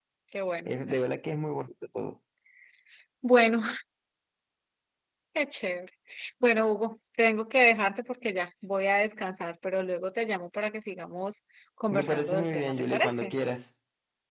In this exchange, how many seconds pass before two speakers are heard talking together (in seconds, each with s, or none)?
11.9 s